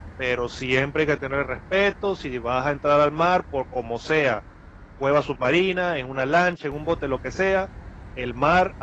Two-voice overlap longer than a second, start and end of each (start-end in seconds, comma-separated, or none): none